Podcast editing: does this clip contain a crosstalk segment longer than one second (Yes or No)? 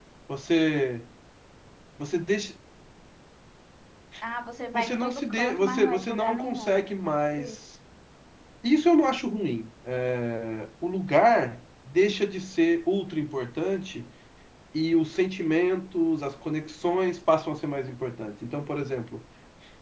Yes